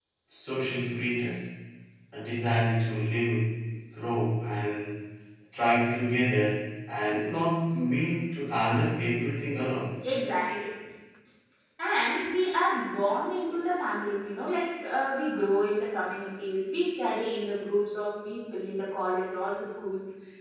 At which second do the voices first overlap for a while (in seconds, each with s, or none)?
none